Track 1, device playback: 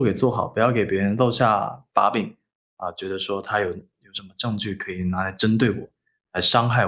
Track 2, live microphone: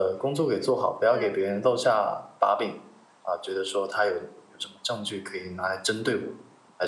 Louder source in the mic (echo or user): echo